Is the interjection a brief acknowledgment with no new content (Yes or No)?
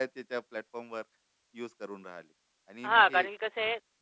No